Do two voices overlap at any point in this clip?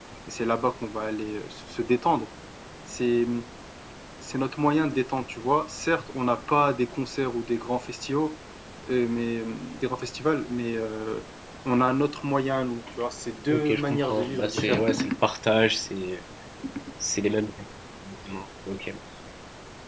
Yes, from 13.5 s

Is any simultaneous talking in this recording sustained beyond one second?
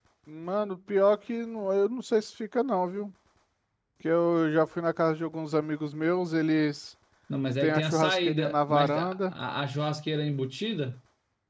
Yes, from 7.6 s

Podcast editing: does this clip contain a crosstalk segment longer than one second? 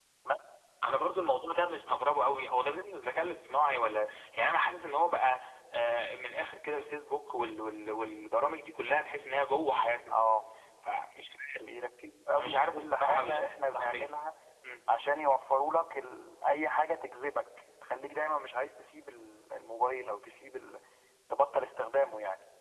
Yes, from 12.4 s

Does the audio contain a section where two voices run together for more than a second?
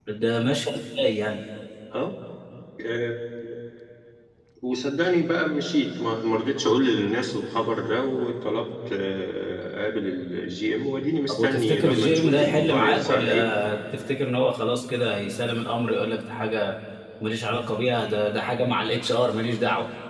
Yes, from 11.3 s

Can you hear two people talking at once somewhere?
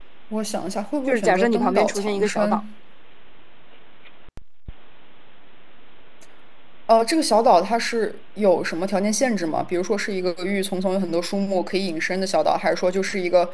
Yes, from 1.1 s

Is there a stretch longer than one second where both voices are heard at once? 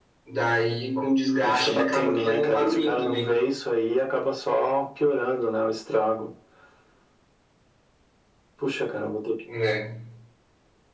Yes, from 1.4 s

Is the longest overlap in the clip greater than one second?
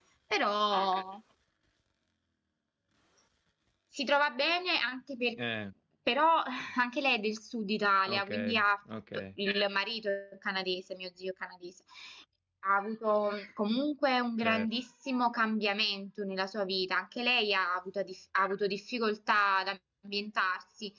No

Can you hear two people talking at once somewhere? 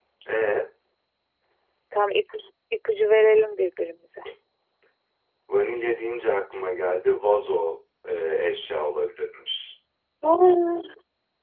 No

